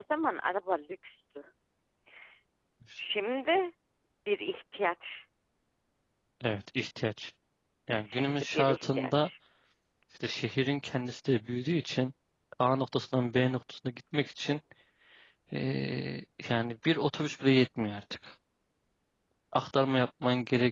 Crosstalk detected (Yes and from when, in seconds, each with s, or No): Yes, from 8.0 s